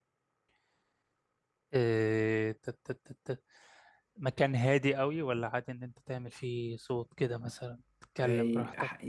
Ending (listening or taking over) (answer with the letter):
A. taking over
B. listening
A